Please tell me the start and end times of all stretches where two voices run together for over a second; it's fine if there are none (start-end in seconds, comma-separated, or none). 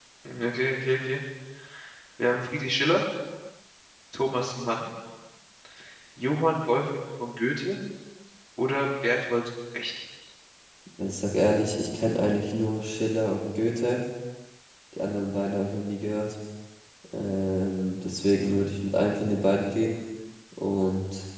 none